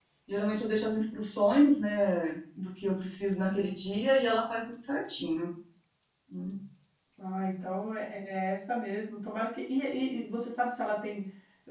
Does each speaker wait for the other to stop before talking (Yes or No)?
Yes